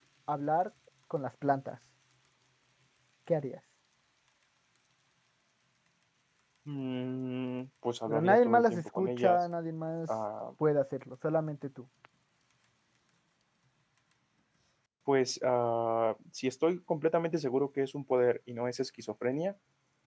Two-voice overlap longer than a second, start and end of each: 8.1-9.4

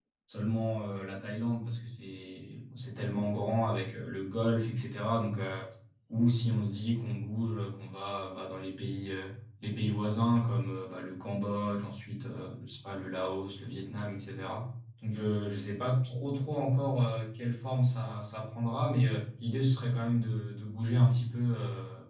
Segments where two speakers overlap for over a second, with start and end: none

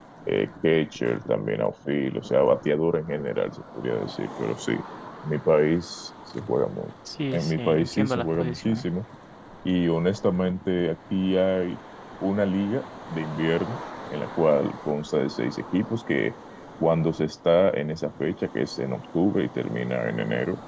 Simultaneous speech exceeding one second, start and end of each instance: 7.3-8.8

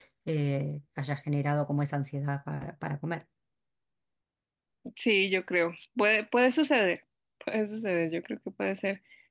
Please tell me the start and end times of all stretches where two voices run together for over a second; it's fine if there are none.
none

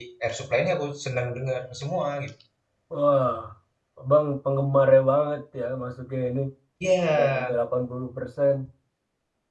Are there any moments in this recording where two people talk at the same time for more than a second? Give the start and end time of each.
none

